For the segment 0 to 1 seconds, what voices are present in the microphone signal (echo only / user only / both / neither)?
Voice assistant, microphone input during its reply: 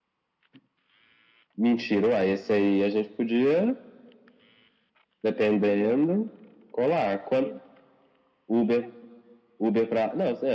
neither